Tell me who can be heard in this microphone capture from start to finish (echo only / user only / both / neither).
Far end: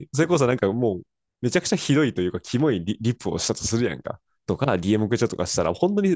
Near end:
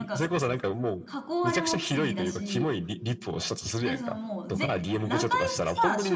both